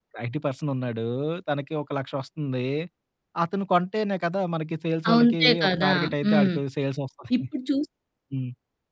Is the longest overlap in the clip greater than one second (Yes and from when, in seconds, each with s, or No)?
Yes, from 5.0 s